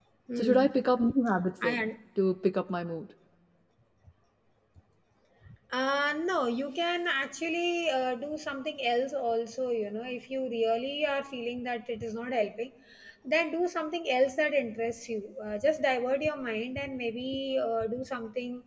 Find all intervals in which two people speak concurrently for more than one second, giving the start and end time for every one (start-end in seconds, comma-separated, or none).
none